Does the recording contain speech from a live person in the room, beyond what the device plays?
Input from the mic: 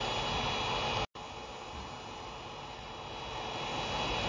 No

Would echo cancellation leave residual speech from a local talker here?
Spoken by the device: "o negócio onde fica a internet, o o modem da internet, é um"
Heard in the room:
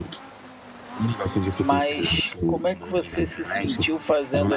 Yes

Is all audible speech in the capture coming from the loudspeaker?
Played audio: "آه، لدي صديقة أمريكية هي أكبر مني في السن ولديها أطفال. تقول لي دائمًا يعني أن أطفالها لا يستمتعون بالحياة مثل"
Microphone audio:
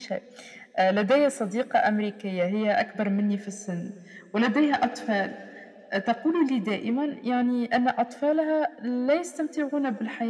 Yes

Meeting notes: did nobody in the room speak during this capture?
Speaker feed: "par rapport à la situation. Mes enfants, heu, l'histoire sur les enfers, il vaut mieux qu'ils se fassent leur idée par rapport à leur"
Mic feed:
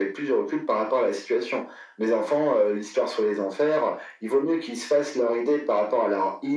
Yes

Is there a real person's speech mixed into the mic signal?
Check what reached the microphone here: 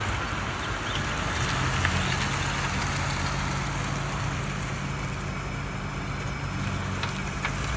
No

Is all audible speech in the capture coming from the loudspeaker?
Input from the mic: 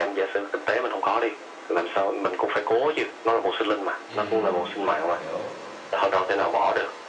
No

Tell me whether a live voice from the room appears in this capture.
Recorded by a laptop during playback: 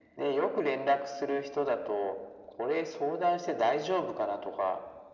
No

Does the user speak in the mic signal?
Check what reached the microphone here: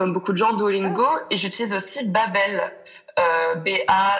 Yes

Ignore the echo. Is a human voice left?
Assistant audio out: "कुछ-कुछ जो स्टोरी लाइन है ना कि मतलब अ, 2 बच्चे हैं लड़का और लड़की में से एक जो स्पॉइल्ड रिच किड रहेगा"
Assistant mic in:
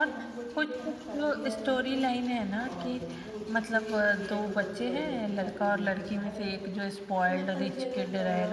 Yes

